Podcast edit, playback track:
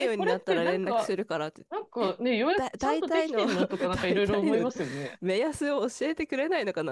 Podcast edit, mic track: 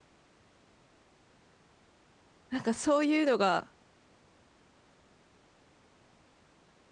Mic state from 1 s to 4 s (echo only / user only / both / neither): user only